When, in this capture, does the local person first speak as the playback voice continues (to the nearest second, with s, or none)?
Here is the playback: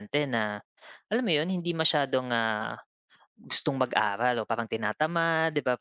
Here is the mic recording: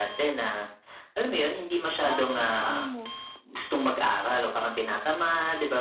2 s